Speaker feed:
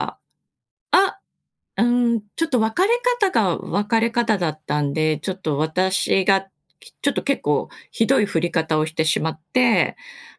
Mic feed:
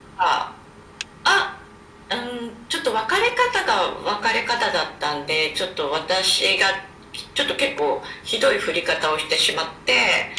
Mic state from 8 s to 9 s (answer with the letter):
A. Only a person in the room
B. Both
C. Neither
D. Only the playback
D